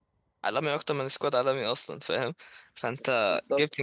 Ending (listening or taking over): listening